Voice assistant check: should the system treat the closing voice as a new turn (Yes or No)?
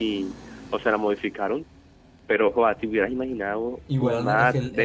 Yes